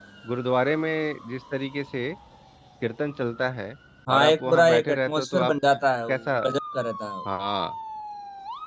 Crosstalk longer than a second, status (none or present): present